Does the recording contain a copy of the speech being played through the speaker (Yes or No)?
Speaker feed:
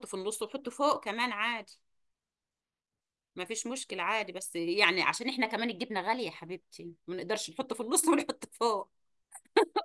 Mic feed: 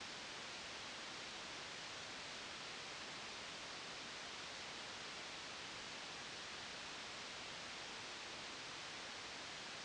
No